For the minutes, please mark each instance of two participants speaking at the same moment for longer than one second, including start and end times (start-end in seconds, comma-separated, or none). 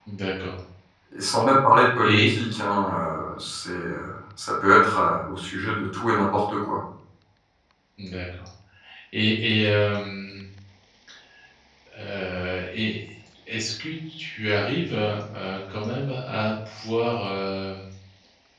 none